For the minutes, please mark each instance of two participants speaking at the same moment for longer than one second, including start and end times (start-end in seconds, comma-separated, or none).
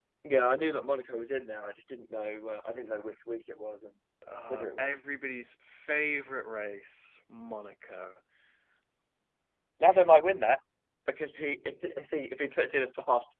none